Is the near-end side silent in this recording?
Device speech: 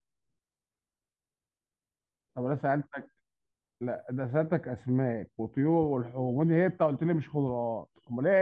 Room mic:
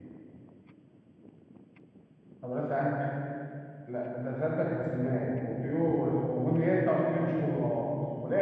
Yes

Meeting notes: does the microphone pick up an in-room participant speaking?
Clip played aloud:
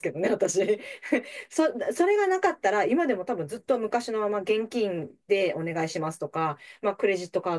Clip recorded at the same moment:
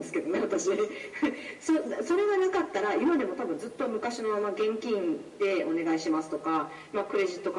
No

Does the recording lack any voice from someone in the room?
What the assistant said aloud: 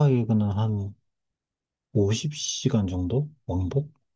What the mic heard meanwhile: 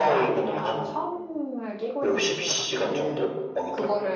No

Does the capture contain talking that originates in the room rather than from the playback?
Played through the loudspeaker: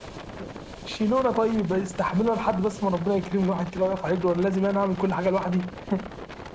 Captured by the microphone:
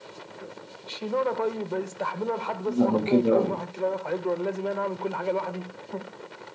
Yes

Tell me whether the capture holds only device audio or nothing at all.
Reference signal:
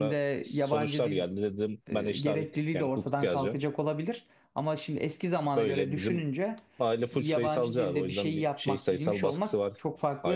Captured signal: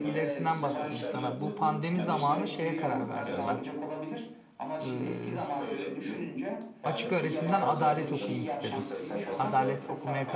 No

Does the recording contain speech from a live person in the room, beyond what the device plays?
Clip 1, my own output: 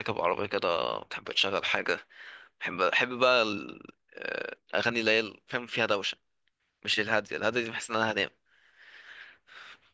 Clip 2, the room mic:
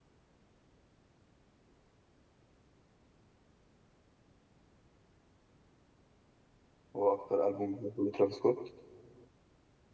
Yes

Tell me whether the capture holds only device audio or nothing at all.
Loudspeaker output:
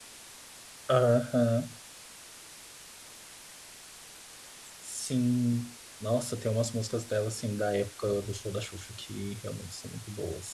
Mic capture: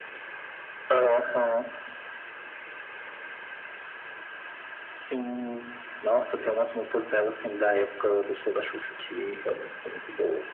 Yes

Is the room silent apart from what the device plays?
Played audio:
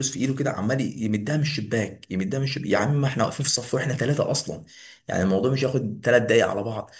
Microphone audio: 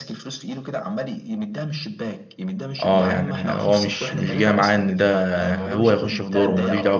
No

